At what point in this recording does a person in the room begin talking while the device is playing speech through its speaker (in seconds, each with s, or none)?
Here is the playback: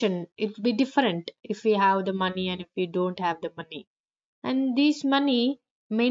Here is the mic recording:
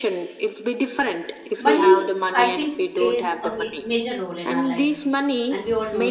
1.6 s